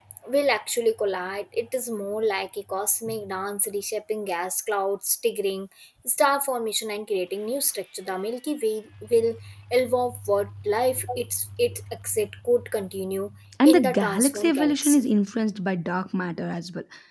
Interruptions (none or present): present